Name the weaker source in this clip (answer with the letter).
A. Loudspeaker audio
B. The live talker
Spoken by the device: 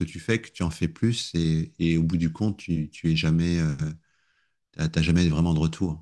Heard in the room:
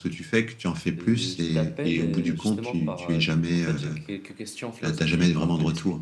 B